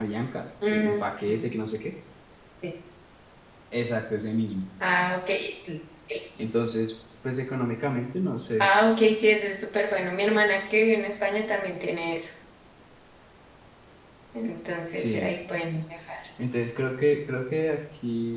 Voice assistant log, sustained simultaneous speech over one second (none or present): none